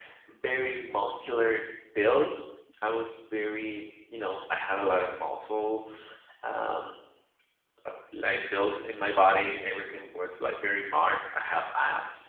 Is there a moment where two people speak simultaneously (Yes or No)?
No